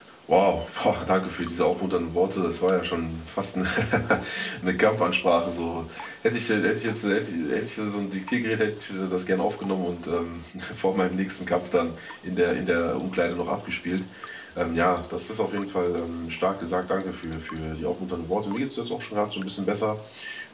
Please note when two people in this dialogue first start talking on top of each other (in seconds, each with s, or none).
none